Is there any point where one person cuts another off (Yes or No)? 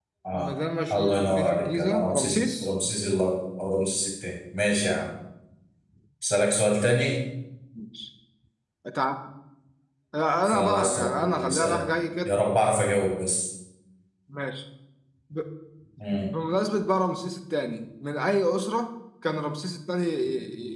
Yes